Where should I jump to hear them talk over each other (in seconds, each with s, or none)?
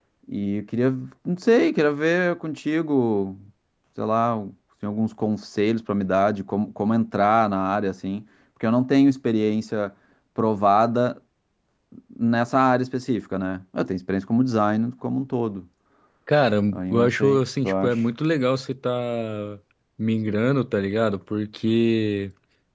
16.7 s